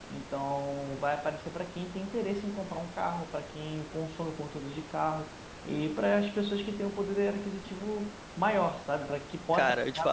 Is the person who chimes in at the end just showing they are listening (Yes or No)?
No